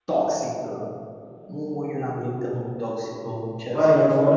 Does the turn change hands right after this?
Yes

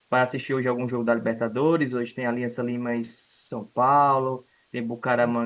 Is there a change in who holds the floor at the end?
No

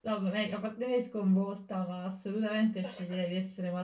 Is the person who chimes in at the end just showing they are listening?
Yes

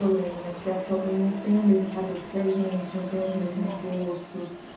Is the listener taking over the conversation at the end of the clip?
No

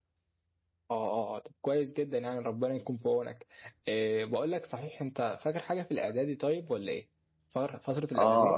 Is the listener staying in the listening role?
No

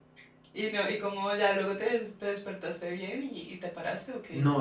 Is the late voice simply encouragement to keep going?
No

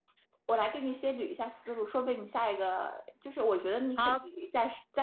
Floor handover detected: No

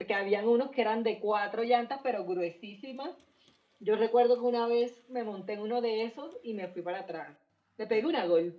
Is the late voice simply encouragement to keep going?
Yes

